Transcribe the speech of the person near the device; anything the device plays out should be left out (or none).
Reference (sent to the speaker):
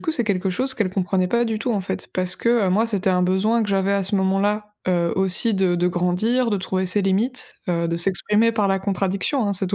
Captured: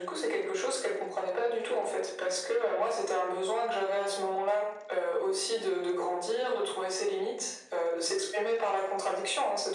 none